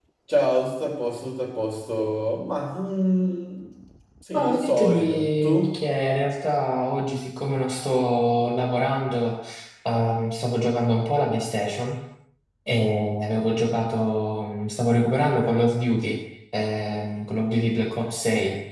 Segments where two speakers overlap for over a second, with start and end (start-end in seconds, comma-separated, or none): 4.3-5.8